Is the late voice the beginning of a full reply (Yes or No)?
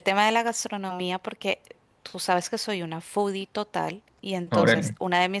No